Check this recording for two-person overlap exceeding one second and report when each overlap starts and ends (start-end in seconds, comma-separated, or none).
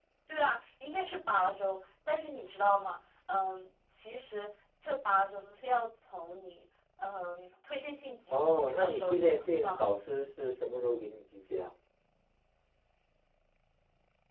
8.3-9.7